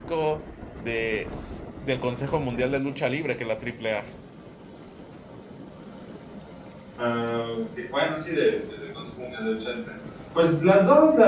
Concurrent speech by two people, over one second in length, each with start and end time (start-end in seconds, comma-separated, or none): none